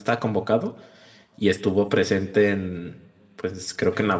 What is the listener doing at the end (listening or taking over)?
listening